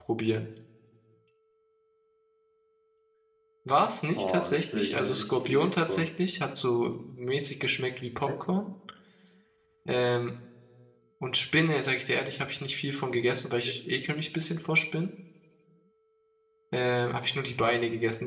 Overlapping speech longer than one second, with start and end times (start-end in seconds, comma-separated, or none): 4.2-6.1